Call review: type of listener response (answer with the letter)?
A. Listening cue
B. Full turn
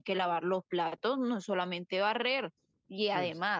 A